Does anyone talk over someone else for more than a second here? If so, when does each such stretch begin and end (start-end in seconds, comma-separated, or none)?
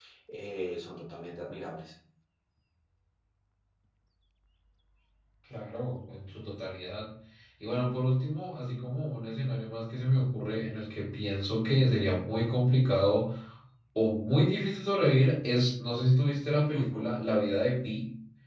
none